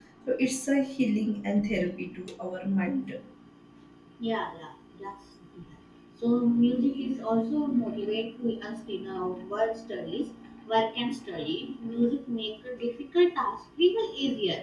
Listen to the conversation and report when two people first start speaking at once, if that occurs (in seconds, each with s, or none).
none